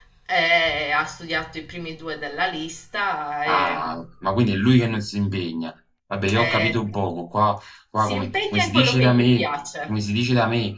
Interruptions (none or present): present